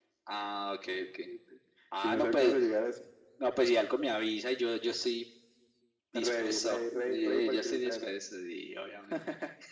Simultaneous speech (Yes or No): Yes